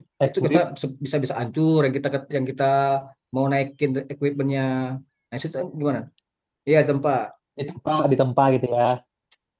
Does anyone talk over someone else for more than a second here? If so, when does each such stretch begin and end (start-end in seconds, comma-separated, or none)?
none